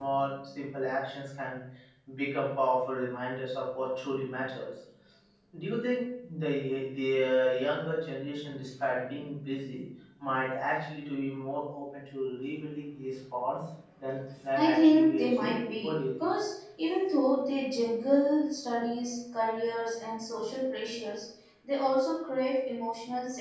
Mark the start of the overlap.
15 s

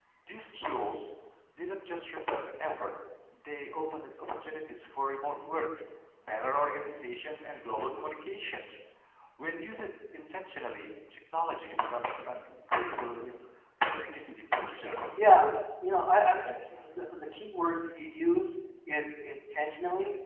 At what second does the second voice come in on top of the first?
none

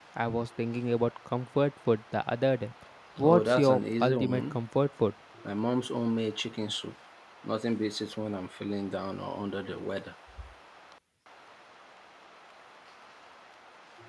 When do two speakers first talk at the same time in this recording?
3 s

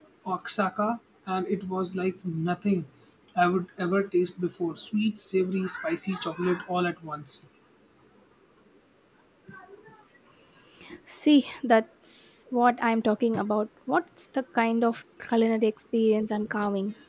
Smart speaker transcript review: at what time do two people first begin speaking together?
none

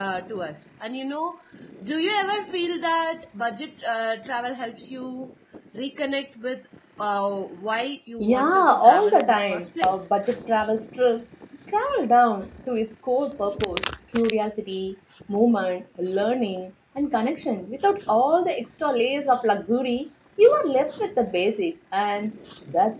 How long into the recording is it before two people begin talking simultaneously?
8 s

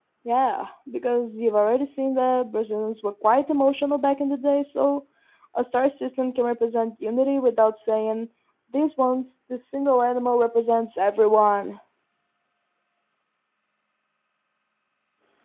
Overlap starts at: none

